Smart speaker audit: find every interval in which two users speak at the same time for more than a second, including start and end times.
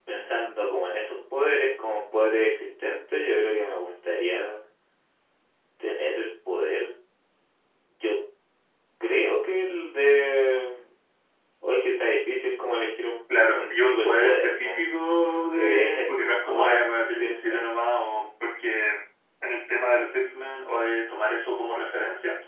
13.5-14.8, 15.5-17.7

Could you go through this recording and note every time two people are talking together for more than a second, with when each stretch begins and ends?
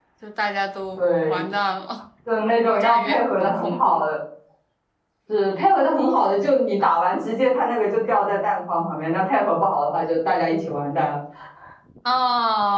2.6-4.0

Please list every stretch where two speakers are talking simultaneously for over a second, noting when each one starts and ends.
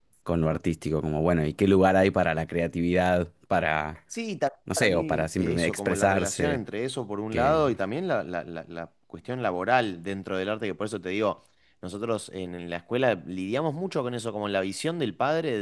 4.8-6.6

